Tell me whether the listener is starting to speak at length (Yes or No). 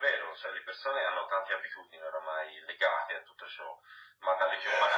Yes